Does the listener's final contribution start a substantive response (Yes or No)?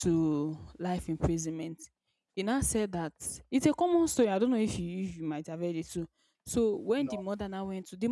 No